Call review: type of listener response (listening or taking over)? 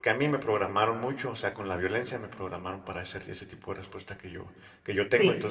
listening